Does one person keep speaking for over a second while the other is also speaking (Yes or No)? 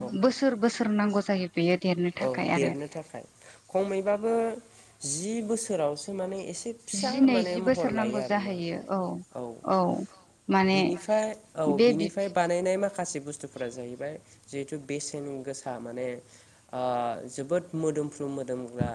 Yes